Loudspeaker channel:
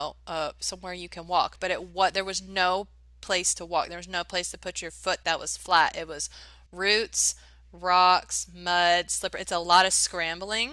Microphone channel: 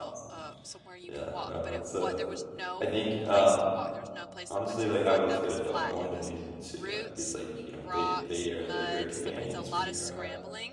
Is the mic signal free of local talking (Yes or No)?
No